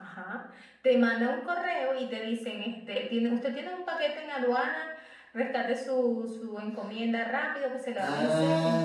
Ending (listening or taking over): taking over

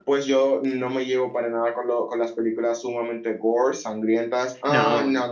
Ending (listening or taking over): listening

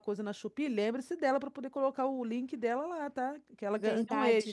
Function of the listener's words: taking over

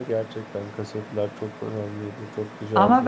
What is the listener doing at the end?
taking over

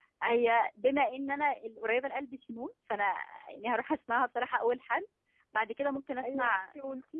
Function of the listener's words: taking over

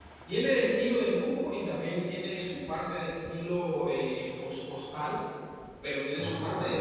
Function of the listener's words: listening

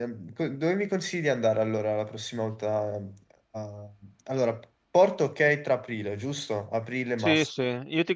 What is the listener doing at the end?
taking over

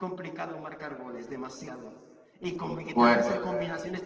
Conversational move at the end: listening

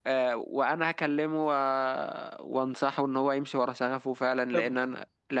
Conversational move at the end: listening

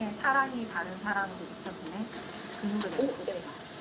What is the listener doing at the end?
taking over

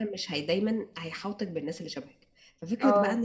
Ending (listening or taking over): listening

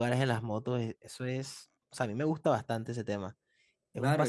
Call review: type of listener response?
taking over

